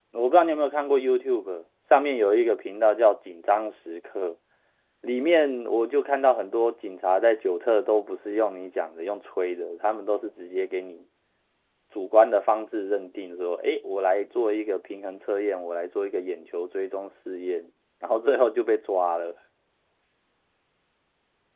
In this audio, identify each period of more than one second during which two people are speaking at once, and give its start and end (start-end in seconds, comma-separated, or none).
none